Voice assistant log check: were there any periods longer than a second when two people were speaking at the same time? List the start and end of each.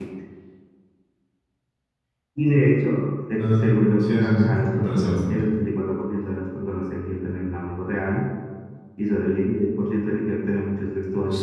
3.4-5.4

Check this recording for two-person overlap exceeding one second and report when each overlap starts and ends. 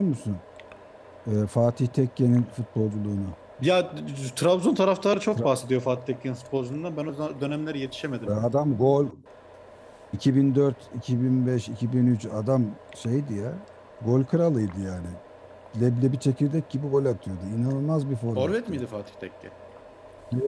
none

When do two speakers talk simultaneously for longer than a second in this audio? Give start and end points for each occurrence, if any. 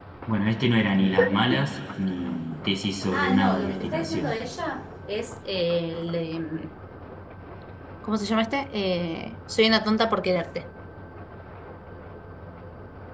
3.1-4.3

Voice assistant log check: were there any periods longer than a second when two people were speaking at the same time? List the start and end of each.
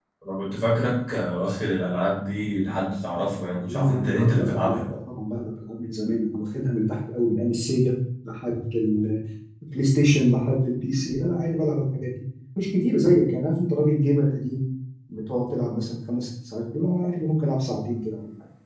3.6-4.8

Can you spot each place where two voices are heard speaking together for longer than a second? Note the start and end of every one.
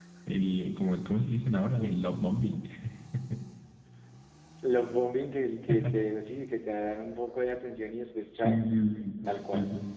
none

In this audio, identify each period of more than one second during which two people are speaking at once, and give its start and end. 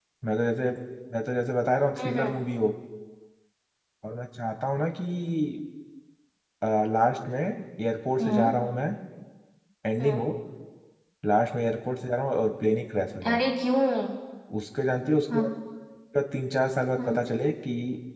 none

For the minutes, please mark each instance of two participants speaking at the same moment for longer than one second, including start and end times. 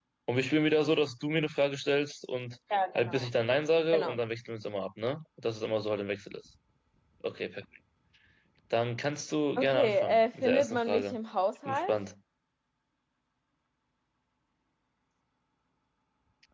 9.6-11.2

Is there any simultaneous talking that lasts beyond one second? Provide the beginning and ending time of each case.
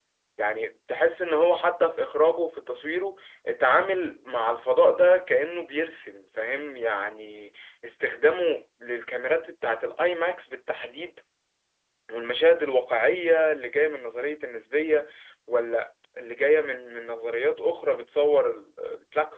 none

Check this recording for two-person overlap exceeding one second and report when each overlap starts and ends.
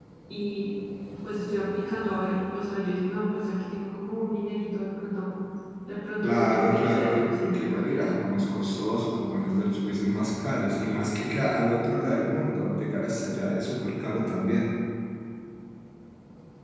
6.2-8.4

